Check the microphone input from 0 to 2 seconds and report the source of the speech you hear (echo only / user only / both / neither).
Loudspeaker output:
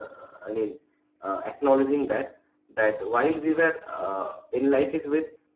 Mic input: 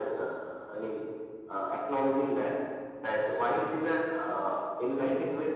echo only